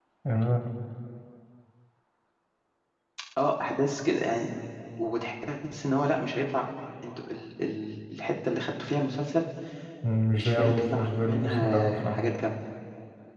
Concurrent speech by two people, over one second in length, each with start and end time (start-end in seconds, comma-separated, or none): 10.4-12.2